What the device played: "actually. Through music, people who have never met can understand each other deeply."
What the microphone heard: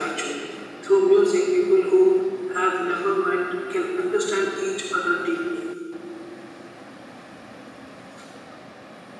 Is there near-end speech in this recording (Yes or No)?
No